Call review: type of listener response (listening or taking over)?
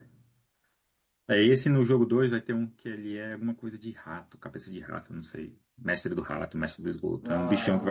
listening